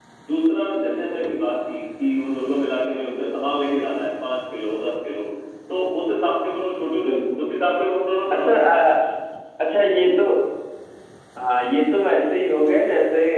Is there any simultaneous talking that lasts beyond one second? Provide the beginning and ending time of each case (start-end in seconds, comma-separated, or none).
none